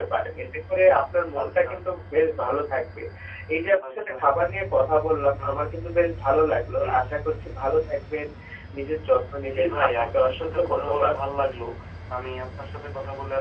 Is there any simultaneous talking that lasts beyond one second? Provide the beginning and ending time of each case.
9.5-11.1

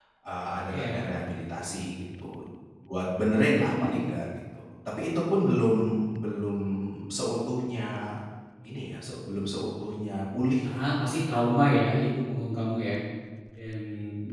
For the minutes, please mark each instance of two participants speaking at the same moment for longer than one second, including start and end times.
none

